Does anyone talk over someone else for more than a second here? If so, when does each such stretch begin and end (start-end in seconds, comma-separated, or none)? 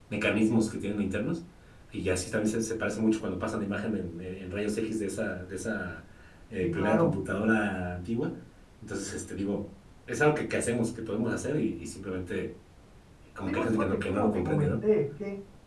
13.5-14.8